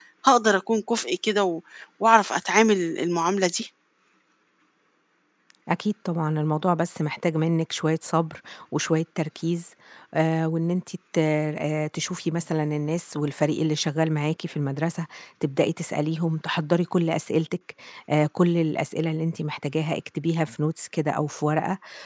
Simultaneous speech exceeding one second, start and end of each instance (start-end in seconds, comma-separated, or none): none